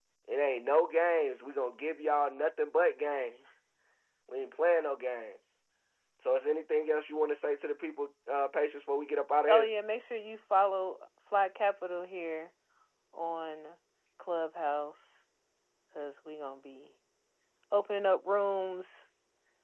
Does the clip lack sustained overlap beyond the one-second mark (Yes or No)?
Yes